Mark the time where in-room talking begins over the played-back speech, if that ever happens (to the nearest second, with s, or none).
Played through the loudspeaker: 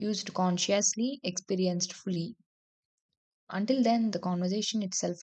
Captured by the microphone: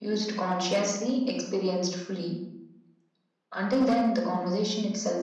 none